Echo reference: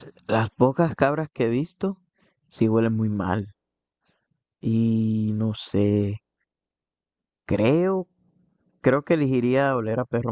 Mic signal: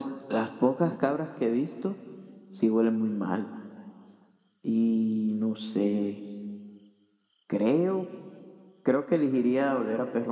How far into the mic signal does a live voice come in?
none

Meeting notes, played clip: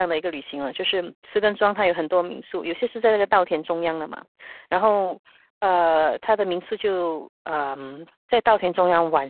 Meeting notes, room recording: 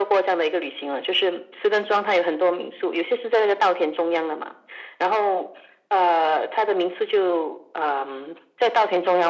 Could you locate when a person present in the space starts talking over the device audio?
none

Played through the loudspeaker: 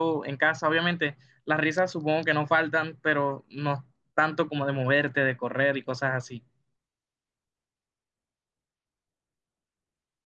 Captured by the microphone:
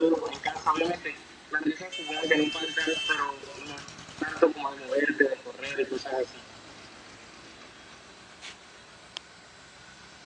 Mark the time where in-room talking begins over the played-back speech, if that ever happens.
none

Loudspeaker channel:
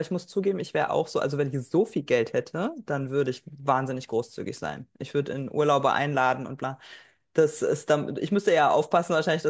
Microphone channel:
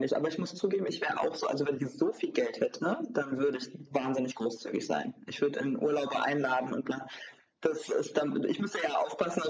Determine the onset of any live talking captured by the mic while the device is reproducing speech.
none

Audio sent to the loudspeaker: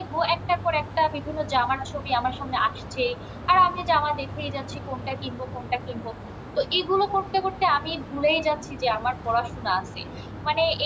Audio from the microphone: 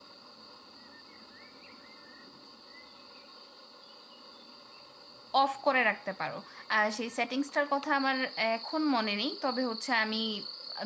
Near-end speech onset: 5 s

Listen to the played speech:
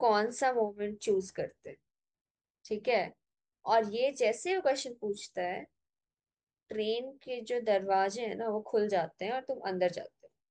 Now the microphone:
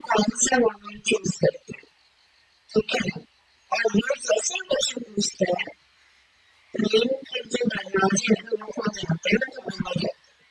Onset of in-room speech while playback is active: none

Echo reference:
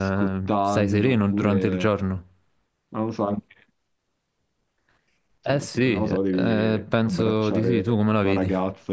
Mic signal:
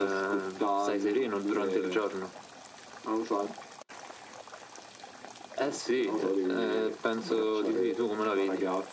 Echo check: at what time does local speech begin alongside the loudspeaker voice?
none

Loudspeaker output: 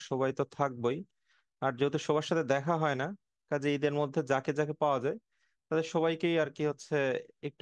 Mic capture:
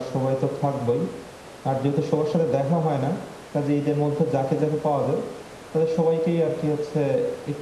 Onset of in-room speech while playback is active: none

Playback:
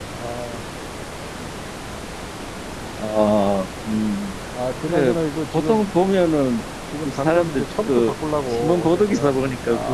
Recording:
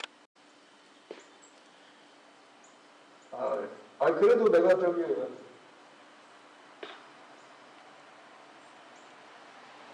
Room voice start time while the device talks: 3 s

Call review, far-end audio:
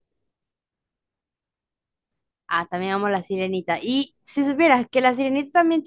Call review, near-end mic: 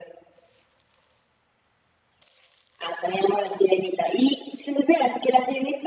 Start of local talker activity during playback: none

